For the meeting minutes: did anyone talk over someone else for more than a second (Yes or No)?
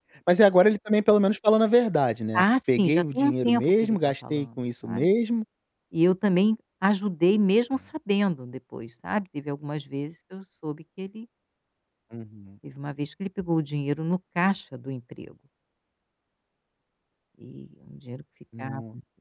Yes